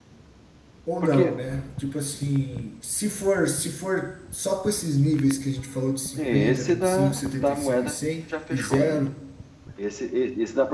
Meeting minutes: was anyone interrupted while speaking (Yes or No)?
Yes